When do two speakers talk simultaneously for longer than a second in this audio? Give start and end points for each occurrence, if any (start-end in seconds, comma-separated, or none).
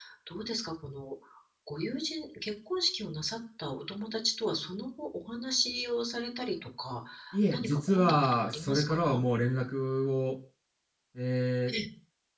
7.5-9.2